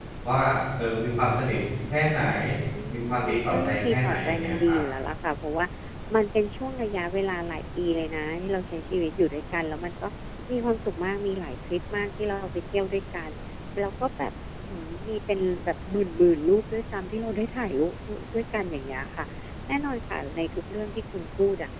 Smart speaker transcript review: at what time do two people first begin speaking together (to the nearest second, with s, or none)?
3 s